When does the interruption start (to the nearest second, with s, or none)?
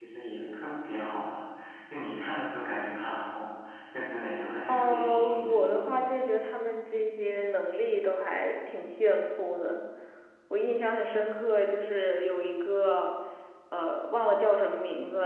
5 s